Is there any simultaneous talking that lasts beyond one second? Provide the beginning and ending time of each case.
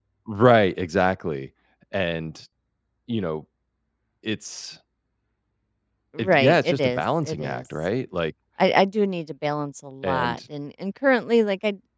6.2-7.6

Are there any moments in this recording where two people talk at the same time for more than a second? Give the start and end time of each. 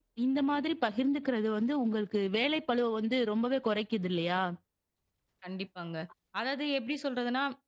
none

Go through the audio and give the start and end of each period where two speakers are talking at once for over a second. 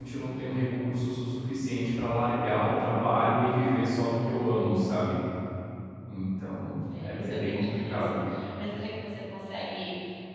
7.0-8.2

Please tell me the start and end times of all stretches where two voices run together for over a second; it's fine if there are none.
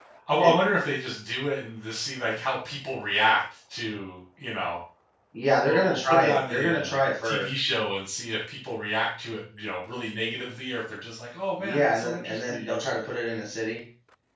5.7-7.5, 11.6-12.8

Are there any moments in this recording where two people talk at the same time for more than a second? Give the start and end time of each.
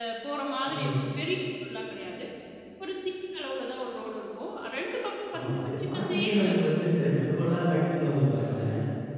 5.3-6.9

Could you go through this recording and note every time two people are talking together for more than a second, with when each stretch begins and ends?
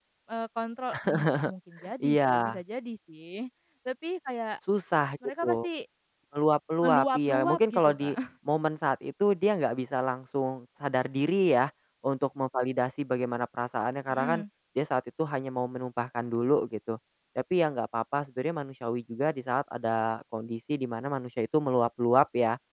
6.8-8.1

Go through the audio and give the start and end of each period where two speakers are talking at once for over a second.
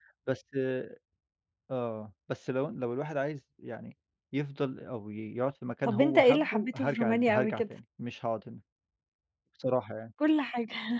5.8-7.6

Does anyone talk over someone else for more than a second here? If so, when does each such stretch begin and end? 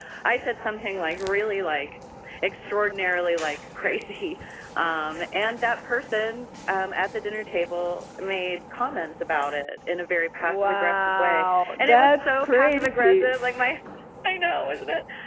10.4-13.3

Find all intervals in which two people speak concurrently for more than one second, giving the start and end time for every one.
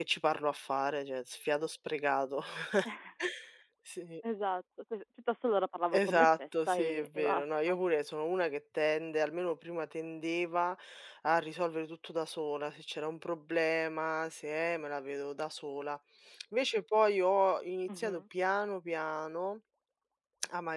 5.9-7.8

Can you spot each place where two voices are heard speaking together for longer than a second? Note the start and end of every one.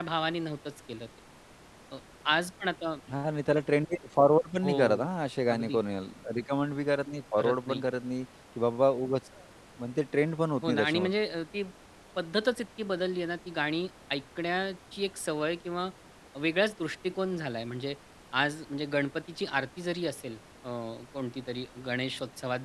none

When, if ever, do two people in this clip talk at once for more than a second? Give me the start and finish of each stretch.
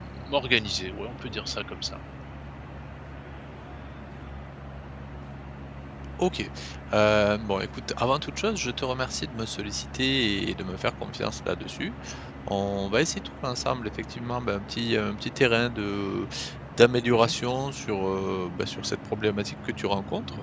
none

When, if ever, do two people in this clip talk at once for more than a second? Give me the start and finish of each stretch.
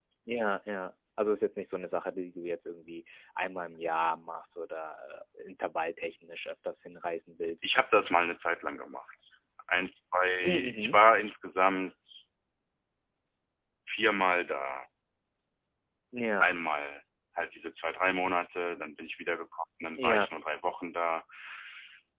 none

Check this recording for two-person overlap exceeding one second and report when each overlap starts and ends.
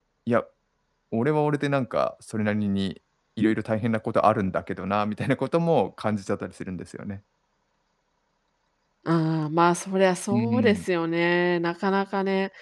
none

